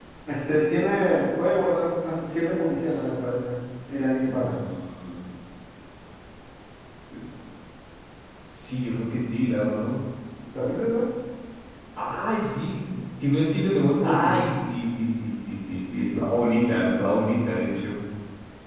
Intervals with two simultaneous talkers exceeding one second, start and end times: none

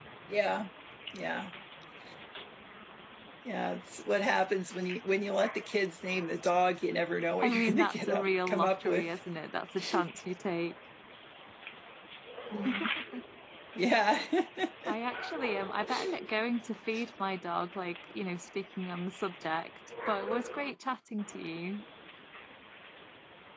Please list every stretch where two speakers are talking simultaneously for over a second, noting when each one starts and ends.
7.4-9.0

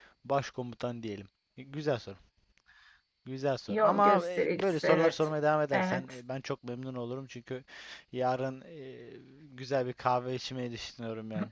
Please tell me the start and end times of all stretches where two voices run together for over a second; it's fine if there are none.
3.7-5.1

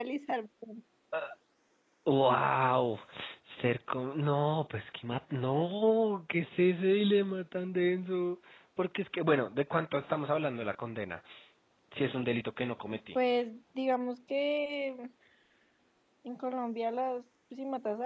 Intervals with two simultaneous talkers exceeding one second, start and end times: none

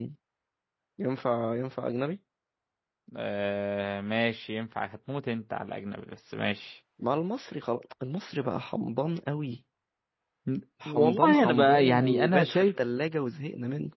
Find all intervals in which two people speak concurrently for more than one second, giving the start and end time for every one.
10.9-12.6

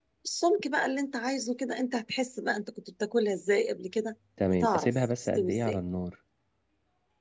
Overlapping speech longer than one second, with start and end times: 4.5-5.8

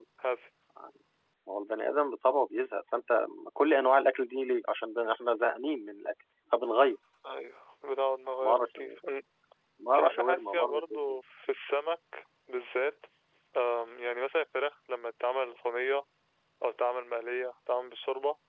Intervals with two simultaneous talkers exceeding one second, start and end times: 9.9-11.2

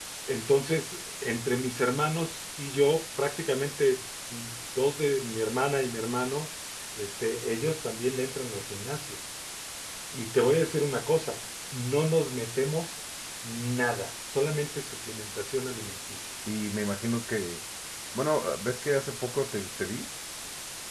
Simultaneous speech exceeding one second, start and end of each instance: none

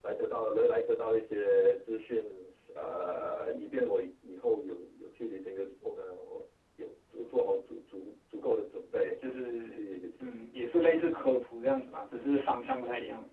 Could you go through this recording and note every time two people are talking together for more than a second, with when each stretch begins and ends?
none

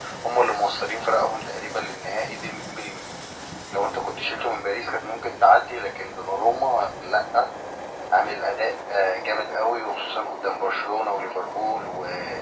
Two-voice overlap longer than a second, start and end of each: none

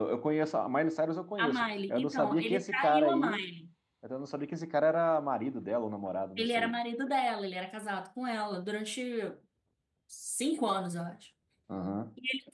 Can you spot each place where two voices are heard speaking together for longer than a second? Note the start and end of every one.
1.4-3.4

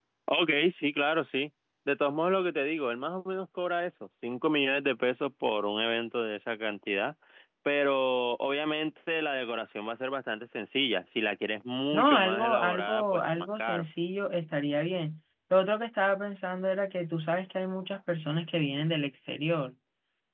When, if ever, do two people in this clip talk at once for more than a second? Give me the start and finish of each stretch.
11.9-13.8

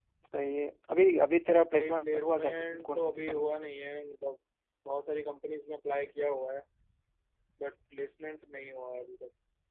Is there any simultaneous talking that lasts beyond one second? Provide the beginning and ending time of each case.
1.7-3.6

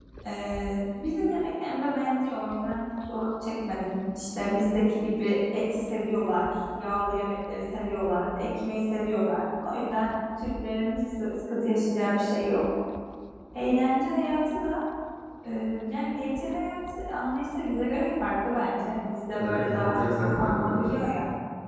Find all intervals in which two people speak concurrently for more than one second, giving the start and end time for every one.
19.4-21.0

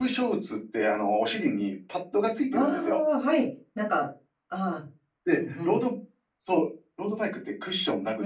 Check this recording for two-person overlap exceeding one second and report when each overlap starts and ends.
none

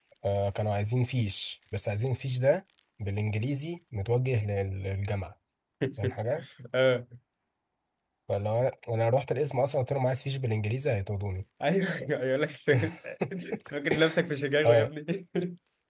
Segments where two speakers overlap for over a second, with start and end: none

